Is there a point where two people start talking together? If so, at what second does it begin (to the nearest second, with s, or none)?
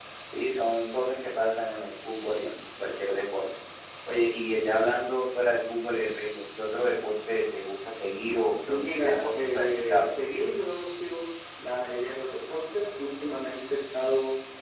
9 s